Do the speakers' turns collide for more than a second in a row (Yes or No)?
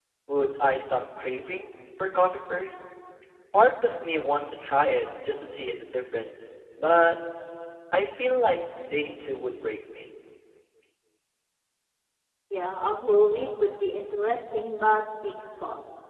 No